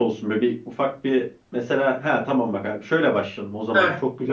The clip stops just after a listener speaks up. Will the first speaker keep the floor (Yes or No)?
Yes